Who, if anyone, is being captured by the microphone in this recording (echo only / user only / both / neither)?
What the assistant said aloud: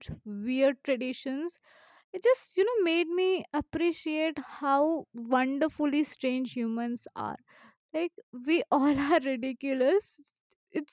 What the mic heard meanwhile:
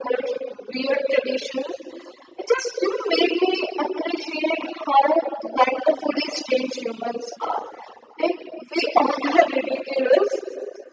echo only